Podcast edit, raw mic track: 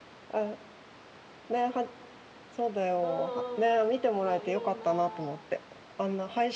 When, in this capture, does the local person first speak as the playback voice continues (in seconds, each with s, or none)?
3.0 s